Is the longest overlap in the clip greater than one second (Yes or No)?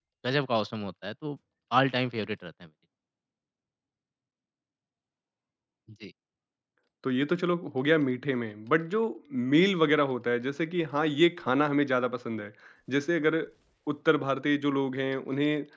No